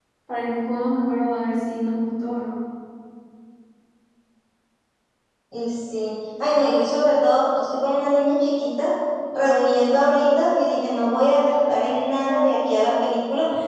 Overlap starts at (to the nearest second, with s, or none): none